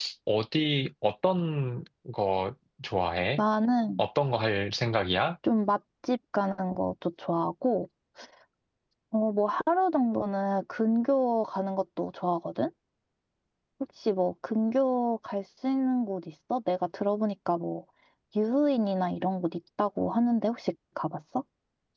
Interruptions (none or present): none